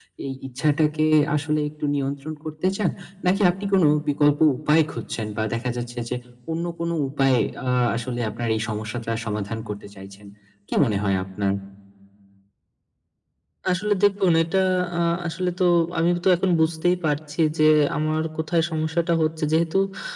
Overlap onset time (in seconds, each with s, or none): none